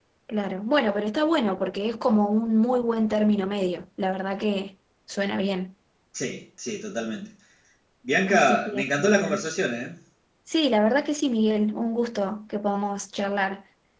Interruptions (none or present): present